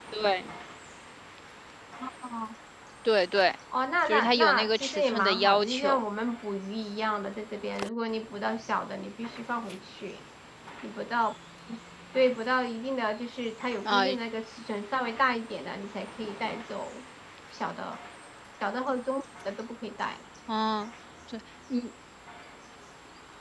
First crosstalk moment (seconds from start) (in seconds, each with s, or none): 4.0 s